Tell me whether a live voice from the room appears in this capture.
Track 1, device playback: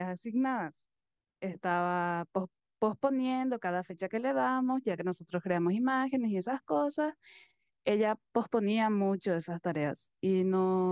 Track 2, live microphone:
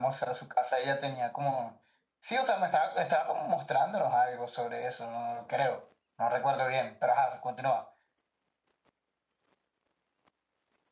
Yes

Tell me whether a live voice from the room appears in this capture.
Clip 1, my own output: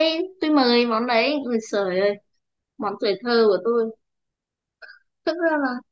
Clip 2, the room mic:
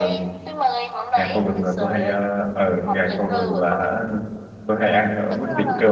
Yes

